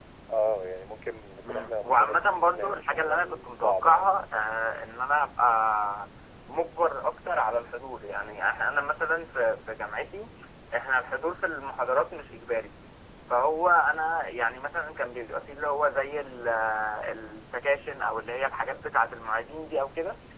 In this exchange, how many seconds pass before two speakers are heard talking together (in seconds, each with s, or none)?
1.4 s